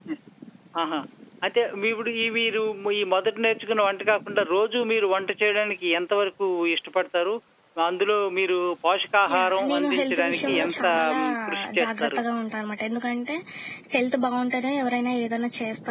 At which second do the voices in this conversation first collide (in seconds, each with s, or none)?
9.2 s